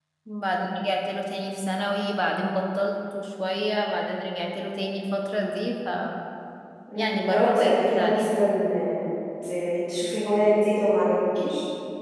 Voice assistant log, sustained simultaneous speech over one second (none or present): present